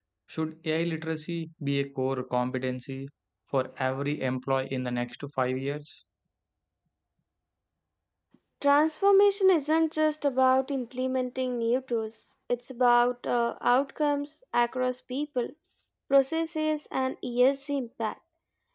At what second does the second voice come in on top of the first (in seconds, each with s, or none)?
none